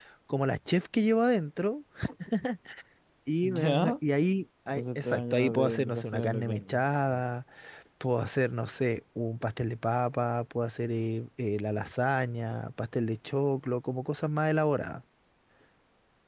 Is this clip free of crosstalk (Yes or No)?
No